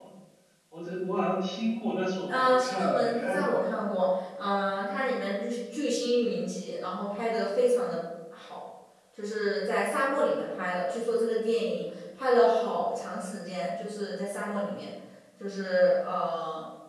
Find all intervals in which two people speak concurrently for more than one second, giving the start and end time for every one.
2.3-3.6

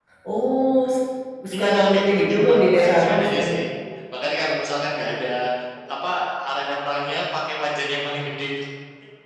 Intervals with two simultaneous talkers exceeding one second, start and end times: 1.5-3.5

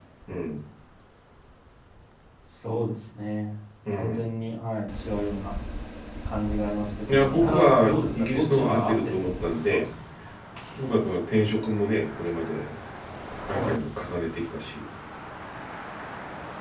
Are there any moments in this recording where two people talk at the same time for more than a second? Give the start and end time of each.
7.1-9.8

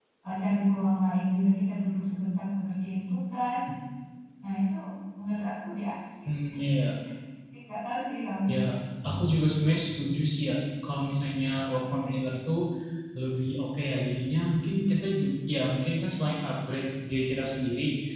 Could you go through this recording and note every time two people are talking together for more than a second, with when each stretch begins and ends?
none

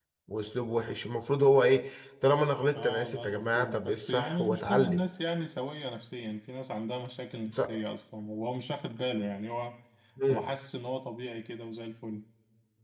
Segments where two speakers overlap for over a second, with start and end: 2.8-5.0

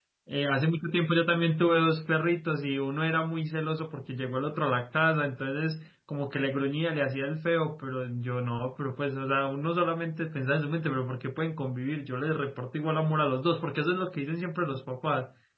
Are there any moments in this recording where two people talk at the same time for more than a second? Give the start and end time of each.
none

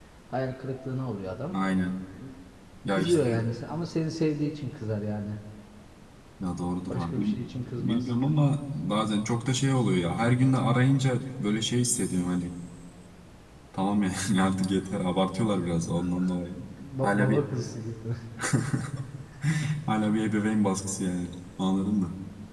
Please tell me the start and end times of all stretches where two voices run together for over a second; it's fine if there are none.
none

